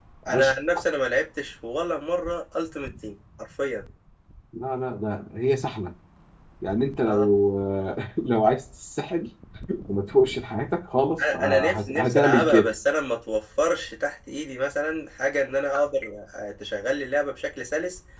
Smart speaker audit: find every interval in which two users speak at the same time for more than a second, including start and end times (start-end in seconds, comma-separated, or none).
11.2-12.7